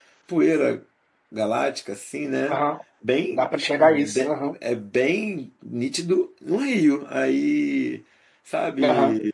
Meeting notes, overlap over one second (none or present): present